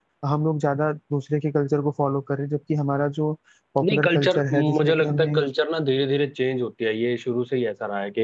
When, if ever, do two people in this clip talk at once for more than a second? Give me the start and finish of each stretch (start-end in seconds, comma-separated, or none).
3.8-5.4